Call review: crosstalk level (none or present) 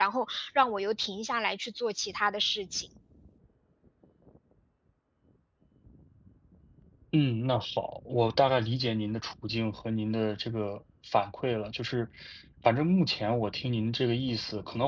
none